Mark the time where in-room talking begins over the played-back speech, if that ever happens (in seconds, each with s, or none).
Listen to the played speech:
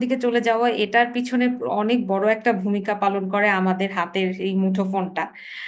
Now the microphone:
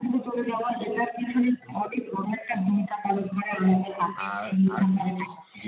4.2 s